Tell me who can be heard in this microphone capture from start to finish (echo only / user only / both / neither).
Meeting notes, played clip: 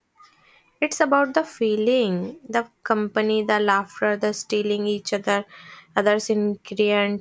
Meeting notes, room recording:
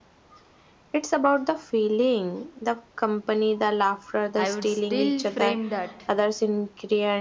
both